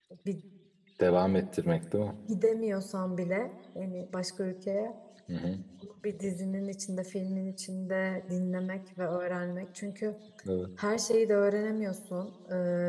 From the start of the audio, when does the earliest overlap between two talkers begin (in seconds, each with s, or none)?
none